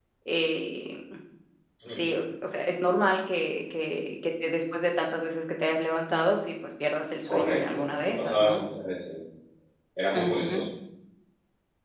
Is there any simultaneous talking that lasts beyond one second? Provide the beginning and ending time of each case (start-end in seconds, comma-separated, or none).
7.3-8.6